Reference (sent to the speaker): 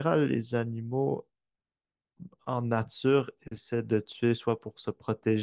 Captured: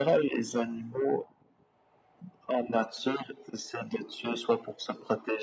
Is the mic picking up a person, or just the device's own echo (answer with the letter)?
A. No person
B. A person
A